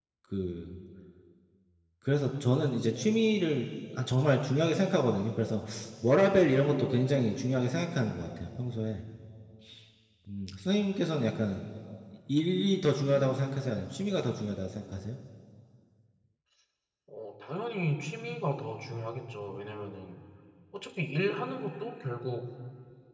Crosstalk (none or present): none